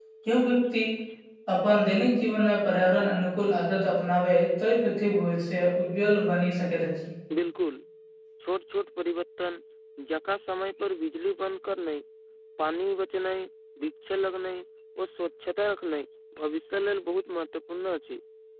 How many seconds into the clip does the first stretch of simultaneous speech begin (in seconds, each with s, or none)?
none